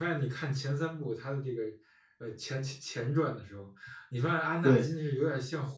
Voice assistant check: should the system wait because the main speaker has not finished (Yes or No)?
Yes